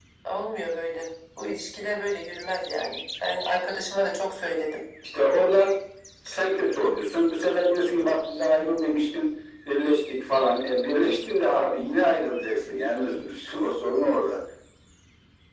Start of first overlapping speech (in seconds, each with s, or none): none